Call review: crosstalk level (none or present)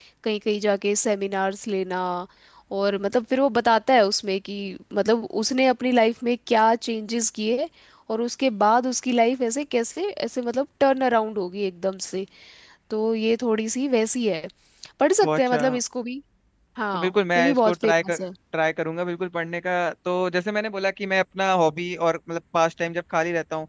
present